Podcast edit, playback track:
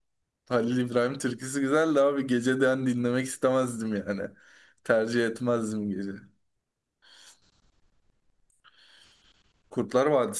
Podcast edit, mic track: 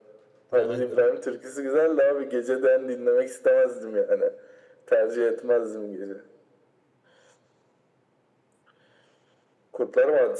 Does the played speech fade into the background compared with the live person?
No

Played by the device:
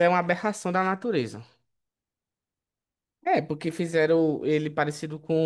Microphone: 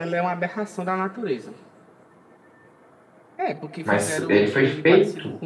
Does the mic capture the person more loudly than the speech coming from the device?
Yes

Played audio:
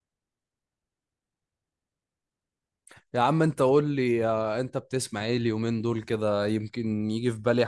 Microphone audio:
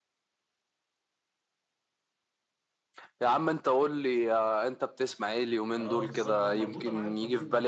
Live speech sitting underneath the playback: Yes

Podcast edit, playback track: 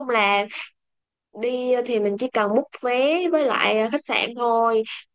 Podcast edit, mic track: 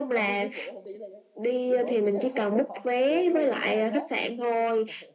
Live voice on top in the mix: No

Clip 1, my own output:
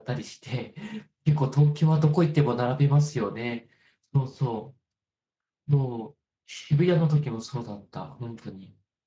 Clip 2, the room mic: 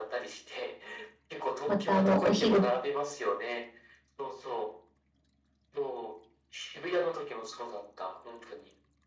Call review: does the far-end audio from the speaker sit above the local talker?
No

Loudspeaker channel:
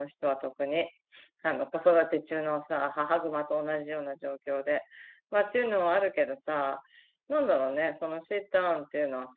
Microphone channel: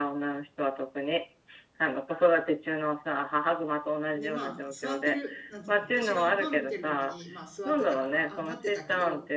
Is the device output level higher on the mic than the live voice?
Yes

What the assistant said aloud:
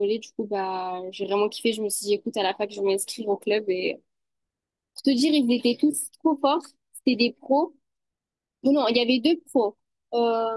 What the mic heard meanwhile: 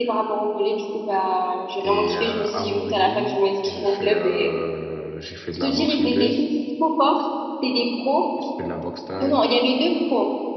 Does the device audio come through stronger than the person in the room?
Yes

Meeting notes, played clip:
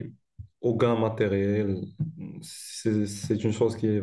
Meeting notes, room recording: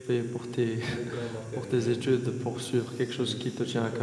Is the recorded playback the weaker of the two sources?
Yes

